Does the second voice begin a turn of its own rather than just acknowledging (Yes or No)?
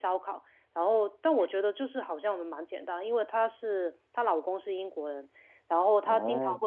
No